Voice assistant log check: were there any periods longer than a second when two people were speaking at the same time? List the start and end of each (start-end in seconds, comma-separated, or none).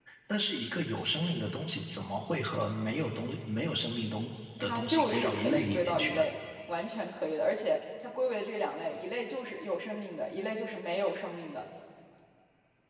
4.6-6.2